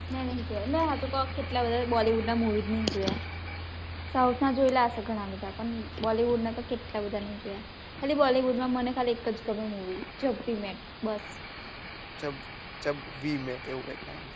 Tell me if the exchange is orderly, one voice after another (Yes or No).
Yes